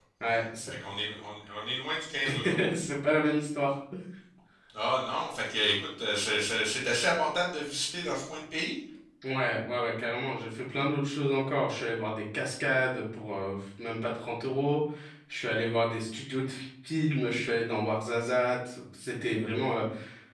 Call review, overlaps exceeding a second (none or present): none